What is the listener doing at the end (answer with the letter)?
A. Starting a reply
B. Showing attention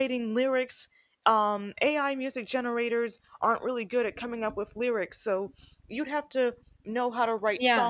B